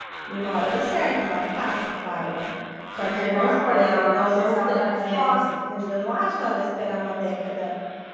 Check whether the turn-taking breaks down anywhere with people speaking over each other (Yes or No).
Yes